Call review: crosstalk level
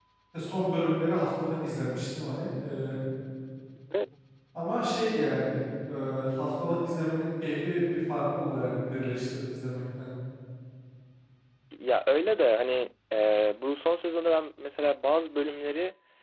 none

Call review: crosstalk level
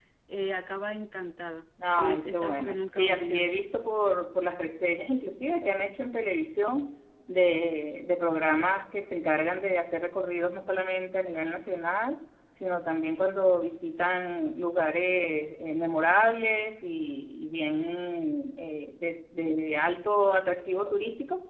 present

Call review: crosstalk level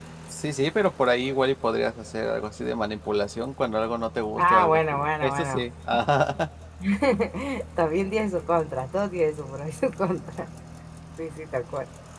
present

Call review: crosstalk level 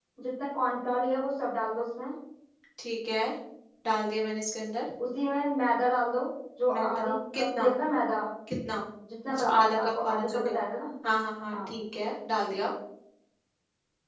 present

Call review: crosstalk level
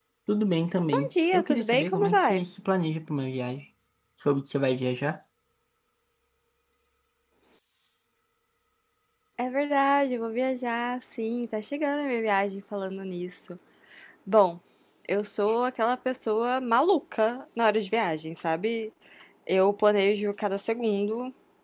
present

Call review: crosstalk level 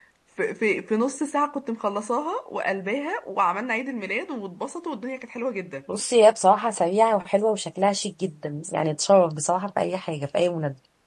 none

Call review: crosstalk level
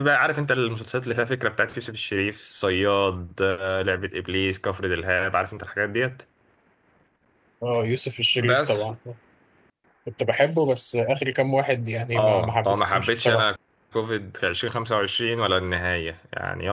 present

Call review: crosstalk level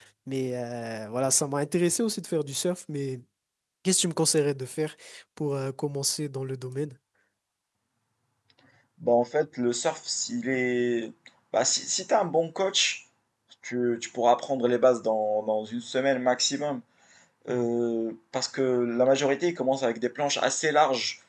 none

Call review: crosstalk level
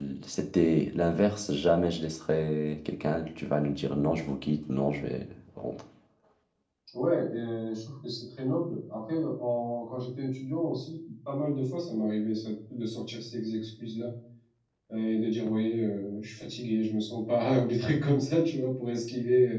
none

